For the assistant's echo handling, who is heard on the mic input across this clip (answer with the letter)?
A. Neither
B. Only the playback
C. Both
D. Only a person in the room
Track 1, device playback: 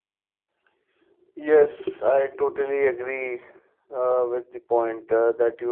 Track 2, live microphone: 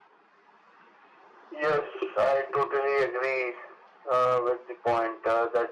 B